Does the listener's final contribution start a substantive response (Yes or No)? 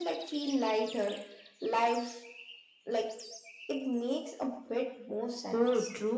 Yes